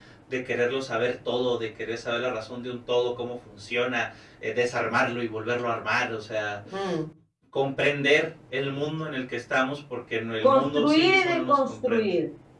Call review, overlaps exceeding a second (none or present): present